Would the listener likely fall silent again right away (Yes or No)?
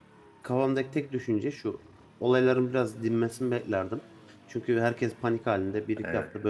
Yes